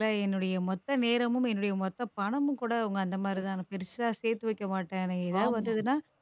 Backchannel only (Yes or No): Yes